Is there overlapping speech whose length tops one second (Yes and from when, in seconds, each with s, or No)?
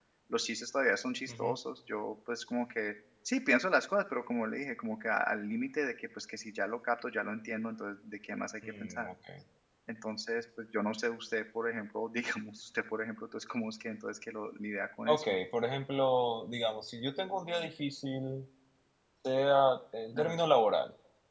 No